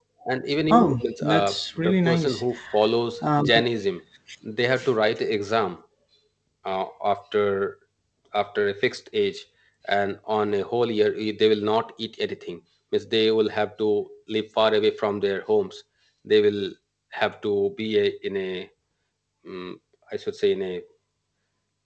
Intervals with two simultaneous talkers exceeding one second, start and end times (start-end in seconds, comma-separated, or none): 0.7-2.4